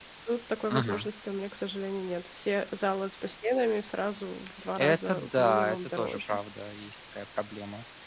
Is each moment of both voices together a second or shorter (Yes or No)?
No